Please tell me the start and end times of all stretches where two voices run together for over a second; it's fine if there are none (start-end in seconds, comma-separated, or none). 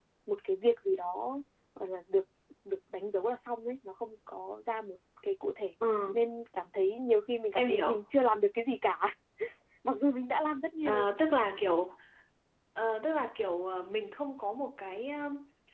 none